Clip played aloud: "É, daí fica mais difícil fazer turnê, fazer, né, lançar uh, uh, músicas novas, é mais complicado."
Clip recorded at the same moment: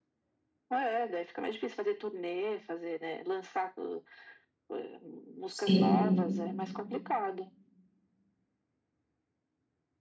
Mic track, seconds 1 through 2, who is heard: echo only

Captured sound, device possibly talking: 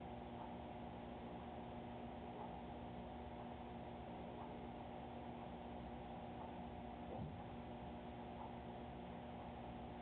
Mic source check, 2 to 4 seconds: neither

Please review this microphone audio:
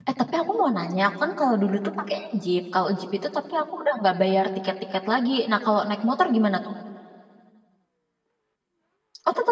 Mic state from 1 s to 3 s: user only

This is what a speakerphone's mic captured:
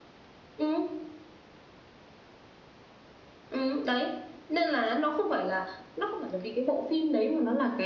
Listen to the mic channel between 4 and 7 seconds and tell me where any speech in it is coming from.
echo only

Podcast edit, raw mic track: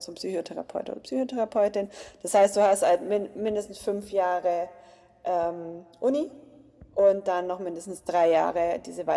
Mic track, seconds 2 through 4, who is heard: echo only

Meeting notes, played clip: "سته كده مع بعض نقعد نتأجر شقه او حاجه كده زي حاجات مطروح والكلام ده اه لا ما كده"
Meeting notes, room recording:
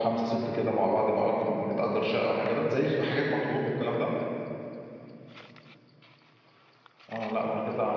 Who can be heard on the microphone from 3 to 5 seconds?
echo only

